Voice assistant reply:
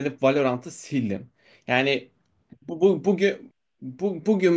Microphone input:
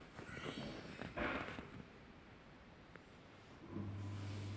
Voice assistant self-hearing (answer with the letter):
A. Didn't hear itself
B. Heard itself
A